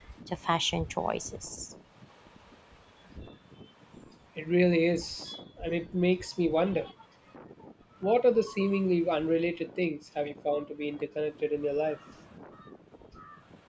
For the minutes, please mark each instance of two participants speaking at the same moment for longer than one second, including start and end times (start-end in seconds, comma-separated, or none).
none